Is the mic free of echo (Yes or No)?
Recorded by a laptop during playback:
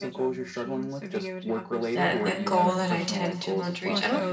No